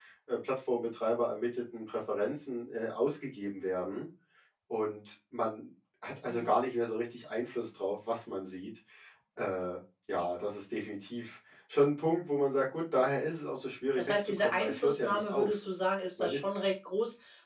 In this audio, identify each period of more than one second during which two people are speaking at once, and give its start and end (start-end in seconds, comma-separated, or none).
14.0-15.5